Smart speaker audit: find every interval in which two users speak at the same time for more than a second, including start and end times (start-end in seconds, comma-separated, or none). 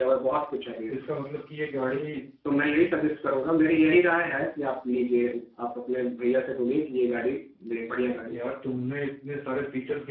none